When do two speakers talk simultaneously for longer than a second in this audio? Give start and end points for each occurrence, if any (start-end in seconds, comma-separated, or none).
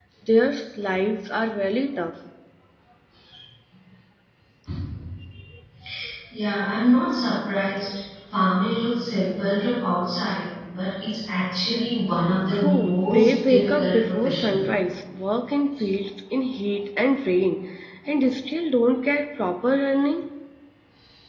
12.5-14.6